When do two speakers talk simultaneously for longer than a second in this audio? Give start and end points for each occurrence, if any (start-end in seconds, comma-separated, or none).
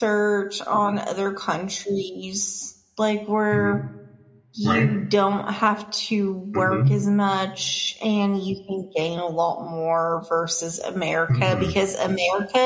none